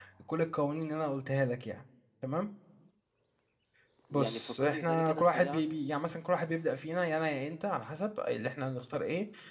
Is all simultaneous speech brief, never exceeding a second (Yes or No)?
No